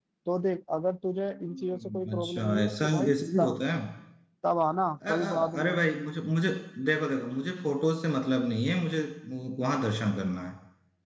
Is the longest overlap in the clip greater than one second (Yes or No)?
Yes